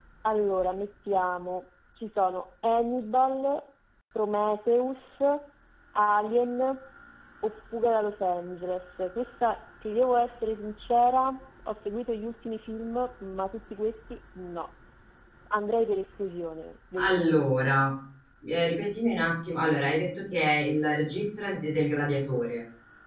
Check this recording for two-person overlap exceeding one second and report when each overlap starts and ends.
none

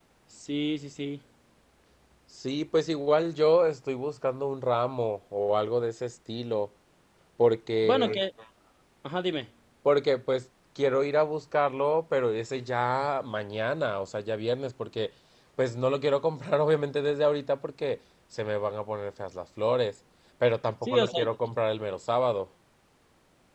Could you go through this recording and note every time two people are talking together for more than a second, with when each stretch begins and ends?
none

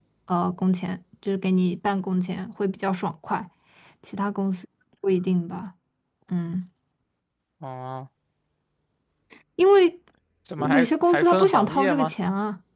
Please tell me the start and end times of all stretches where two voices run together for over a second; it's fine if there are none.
10.6-12.1

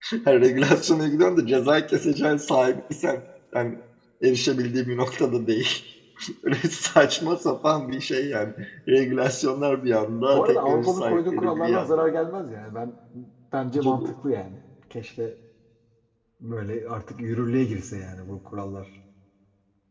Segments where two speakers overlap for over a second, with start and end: 10.3-11.9

